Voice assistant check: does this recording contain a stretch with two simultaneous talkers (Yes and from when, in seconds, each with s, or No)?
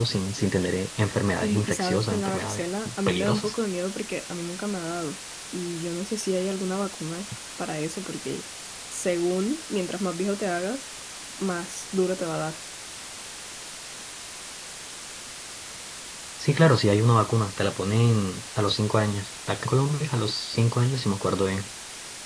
Yes, from 1.4 s